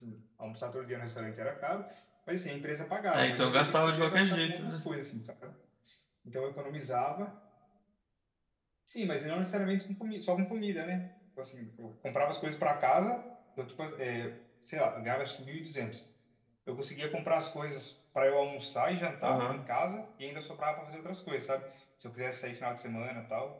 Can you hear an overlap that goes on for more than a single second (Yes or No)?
Yes